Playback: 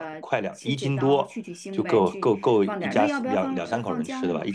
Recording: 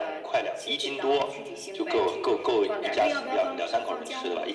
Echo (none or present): present